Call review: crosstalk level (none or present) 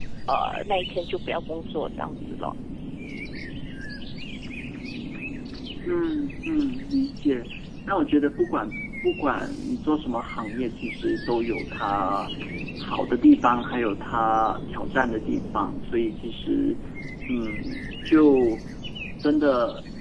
none